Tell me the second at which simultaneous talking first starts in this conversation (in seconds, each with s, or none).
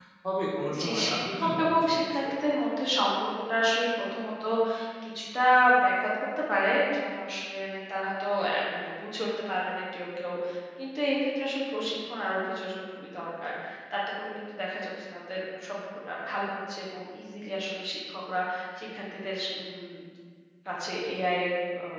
0.8 s